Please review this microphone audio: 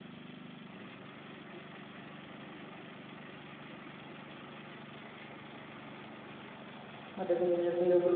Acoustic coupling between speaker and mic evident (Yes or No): No